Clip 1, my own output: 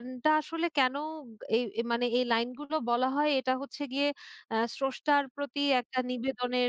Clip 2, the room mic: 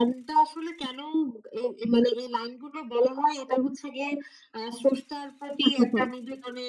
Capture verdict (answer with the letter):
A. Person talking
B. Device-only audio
A